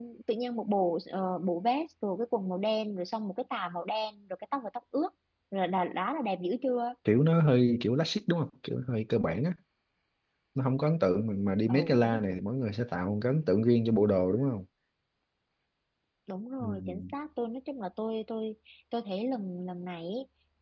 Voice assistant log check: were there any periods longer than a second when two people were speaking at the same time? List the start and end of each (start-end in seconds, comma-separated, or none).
none